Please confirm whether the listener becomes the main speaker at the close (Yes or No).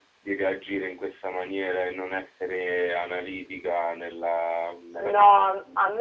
Yes